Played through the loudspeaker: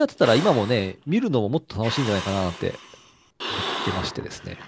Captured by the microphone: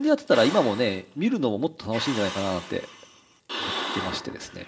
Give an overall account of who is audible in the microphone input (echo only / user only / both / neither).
echo only